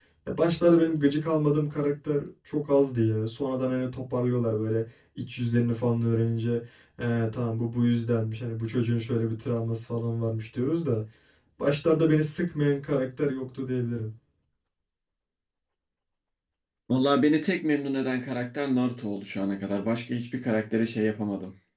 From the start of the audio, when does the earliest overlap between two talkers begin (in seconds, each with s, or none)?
none